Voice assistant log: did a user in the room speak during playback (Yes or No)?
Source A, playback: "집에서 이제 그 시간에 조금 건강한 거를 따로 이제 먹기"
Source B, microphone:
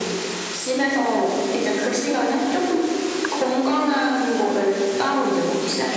No